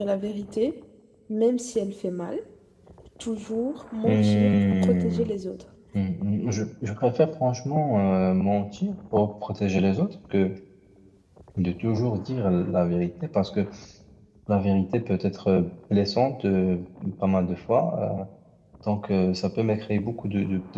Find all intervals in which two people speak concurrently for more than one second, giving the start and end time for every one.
4.0-5.3

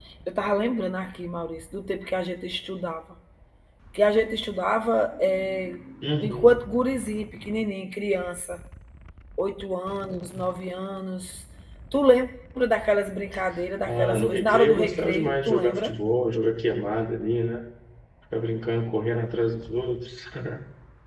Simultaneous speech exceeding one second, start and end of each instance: 13.9-15.9

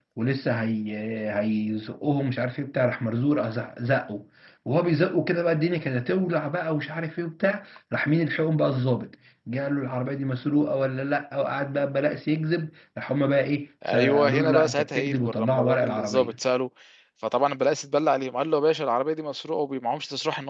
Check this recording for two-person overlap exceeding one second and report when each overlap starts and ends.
13.9-16.3

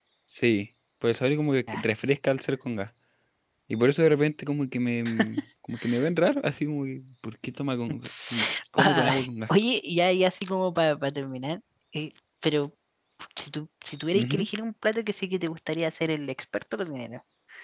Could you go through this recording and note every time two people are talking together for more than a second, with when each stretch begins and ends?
none

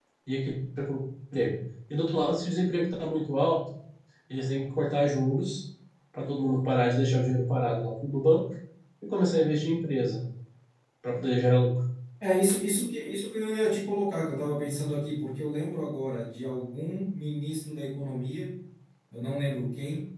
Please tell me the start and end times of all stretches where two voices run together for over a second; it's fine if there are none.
none

